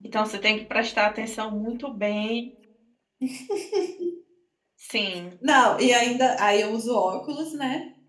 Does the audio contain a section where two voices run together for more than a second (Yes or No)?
No